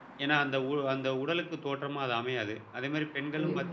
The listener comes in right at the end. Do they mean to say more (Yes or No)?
No